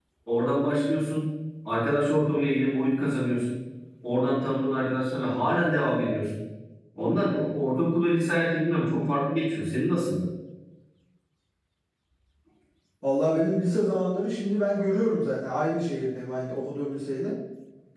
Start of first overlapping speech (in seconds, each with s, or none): none